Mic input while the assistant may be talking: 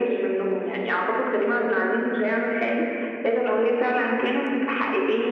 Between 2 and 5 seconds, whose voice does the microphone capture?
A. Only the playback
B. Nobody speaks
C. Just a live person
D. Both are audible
A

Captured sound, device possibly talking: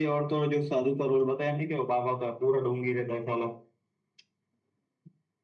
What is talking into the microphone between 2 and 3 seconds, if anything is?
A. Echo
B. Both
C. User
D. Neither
A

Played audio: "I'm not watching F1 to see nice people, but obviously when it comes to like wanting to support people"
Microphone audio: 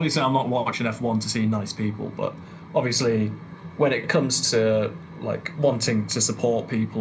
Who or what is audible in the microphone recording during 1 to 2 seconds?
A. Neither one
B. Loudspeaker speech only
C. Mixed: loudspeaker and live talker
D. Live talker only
B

